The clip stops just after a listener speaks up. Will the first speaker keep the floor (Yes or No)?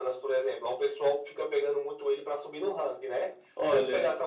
Yes